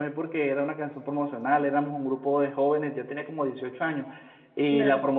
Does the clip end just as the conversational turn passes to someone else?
No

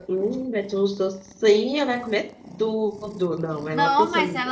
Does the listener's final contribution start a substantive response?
Yes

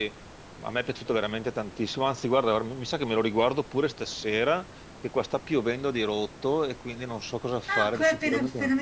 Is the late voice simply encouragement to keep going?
No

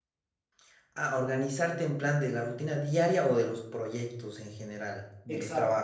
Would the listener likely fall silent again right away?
No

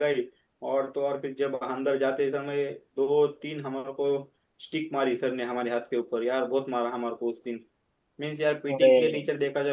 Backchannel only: Yes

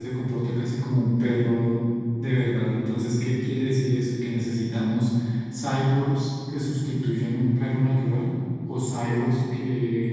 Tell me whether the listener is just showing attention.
Yes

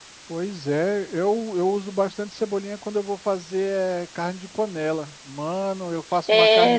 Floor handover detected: Yes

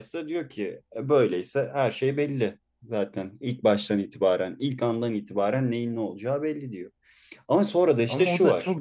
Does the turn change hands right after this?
Yes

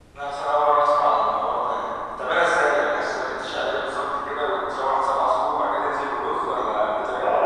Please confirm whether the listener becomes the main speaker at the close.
Yes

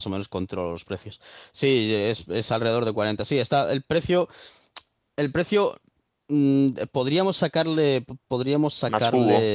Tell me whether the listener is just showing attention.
Yes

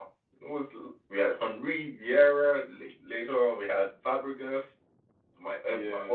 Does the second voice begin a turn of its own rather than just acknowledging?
No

